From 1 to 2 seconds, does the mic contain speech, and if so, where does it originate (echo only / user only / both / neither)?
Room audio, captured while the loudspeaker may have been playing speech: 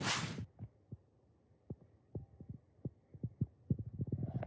neither